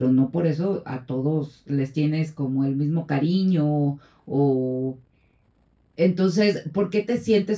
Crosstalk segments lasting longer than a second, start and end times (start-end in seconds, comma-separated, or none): none